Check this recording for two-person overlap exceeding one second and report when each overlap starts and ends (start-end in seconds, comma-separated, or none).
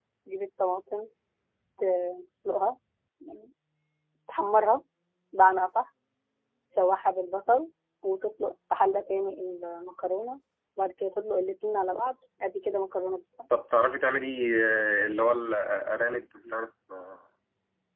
none